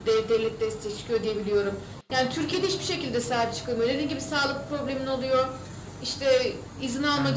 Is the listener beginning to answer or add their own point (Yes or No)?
No